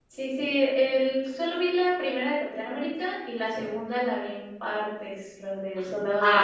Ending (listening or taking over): taking over